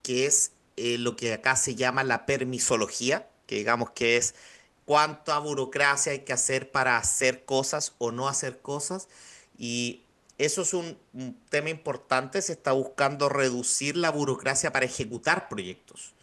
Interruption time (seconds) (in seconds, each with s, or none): none